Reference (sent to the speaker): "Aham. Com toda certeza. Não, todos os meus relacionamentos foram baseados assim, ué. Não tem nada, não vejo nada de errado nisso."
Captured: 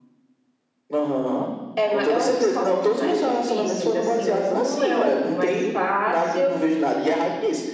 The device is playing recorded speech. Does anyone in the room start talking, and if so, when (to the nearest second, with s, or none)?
2 s